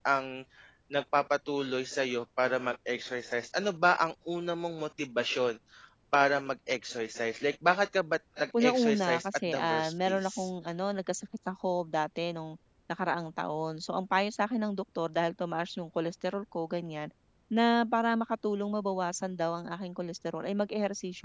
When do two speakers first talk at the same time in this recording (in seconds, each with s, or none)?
8.5 s